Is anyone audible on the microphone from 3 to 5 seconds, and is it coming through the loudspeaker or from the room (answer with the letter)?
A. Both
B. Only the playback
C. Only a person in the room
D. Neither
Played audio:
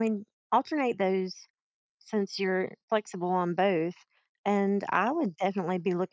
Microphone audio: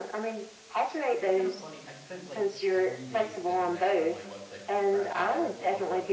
A